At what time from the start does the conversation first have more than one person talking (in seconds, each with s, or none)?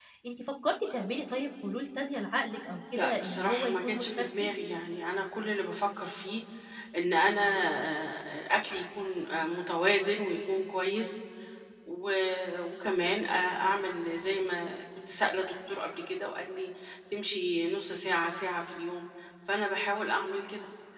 2.9 s